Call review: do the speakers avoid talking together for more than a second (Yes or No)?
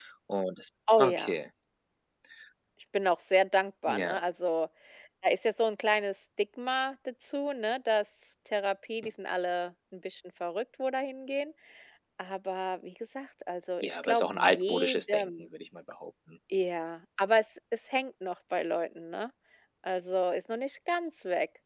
No